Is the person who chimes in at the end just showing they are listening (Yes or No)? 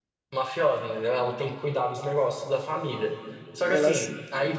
Yes